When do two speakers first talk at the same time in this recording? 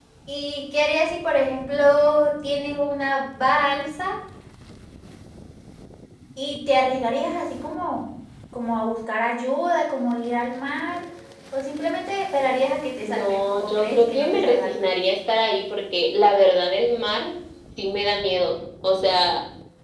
13 s

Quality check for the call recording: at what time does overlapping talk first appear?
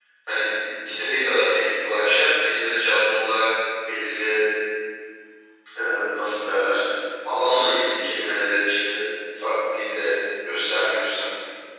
none

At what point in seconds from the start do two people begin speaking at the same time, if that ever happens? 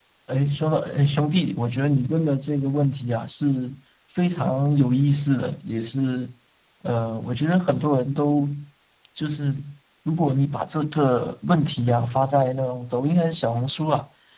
none

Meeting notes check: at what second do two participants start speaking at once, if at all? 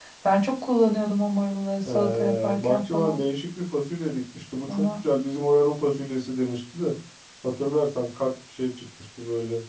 2 s

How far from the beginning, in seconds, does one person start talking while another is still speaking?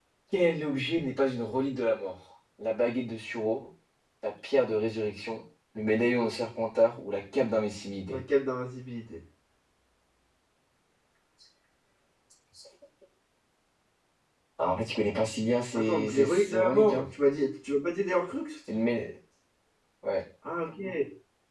16 s

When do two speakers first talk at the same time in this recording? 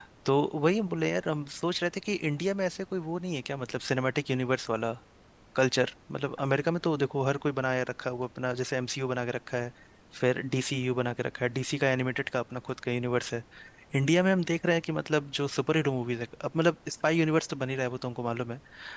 none

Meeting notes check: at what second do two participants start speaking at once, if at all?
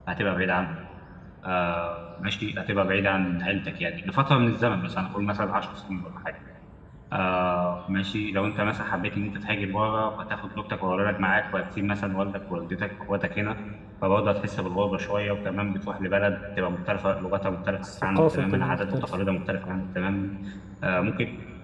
18 s

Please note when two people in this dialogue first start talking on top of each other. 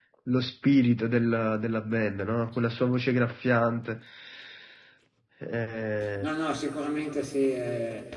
none

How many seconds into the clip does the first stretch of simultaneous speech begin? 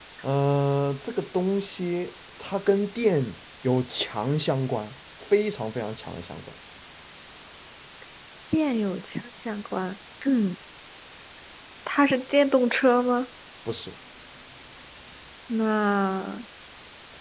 none

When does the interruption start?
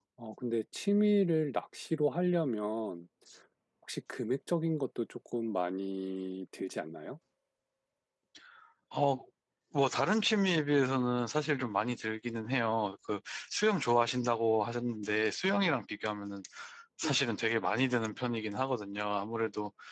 none

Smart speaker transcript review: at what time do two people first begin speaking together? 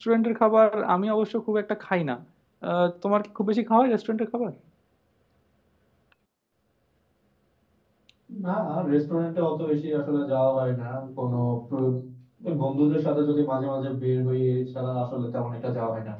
none

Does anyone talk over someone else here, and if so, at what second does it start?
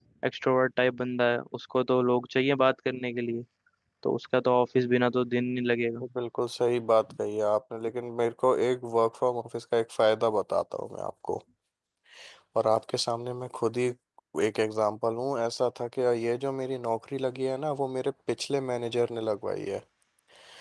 none

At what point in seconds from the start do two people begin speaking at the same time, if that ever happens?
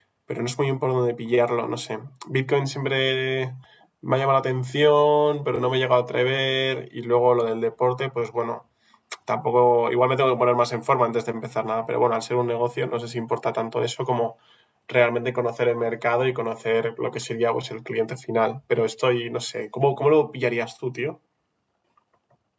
none

